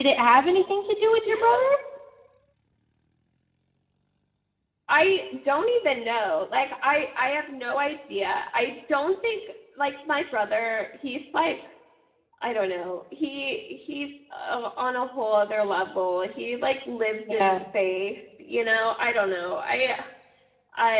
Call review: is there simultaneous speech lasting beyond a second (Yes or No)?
No